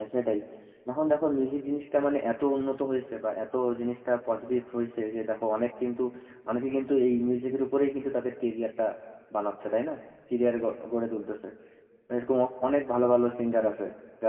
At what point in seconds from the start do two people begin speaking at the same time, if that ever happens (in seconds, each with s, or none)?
none